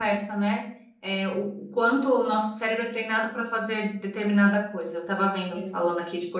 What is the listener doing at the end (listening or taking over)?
listening